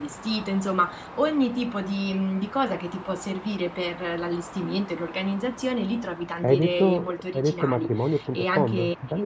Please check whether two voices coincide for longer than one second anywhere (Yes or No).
Yes